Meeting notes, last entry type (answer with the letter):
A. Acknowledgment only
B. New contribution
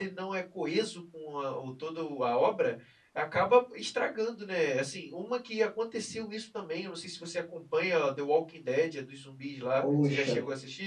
B